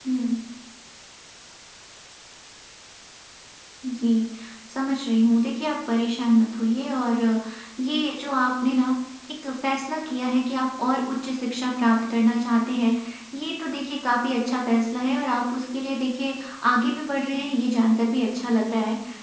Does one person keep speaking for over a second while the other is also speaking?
No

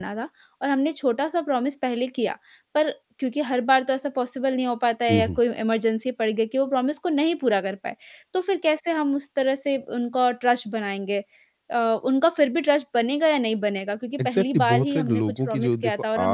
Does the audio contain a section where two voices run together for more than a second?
Yes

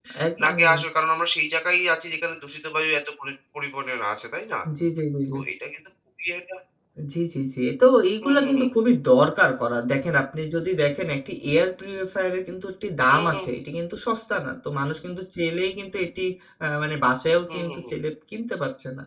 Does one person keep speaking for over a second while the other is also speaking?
No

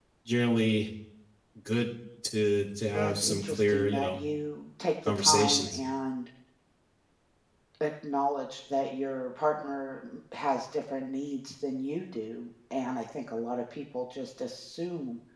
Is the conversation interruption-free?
No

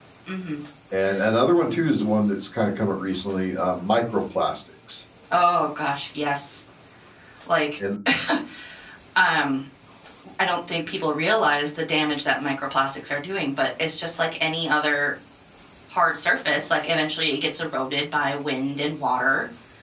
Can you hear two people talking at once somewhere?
No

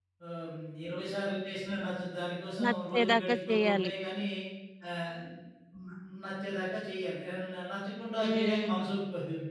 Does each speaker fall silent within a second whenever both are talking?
No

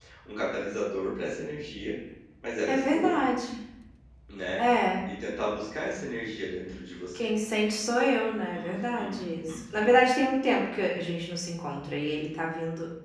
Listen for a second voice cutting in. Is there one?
Yes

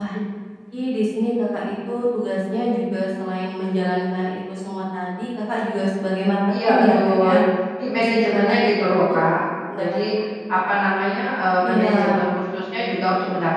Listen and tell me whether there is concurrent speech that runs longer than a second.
Yes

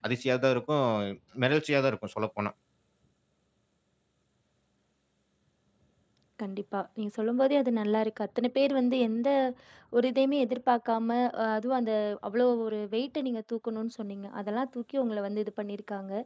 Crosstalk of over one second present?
No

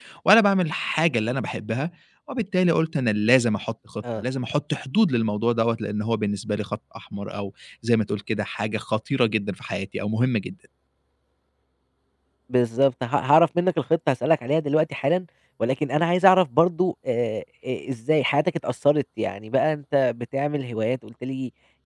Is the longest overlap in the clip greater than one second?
No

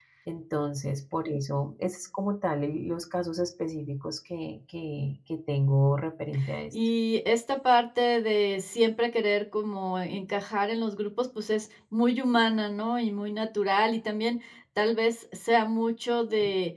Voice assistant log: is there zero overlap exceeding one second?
Yes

